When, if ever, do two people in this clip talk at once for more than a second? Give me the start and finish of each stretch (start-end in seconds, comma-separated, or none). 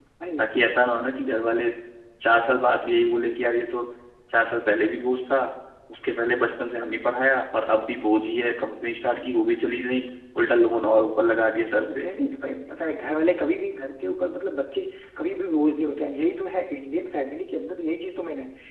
none